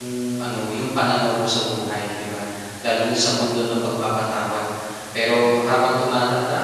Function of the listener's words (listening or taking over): listening